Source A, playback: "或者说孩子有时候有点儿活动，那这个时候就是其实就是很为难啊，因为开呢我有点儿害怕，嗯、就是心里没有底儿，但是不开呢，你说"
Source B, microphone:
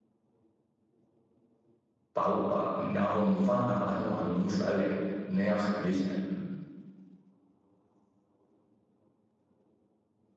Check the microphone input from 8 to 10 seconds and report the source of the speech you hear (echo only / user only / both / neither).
neither